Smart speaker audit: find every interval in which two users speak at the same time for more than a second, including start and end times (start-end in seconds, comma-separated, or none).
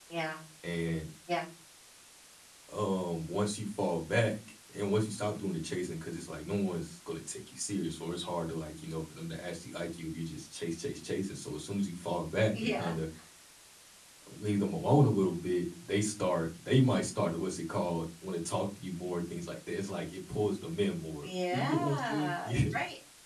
21.2-22.7